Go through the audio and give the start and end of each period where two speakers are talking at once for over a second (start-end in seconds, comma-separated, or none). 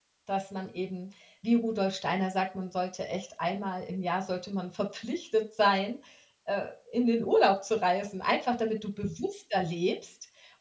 none